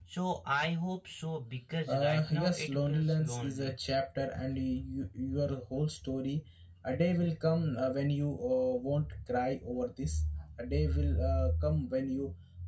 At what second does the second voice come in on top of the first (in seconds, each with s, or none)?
1.9 s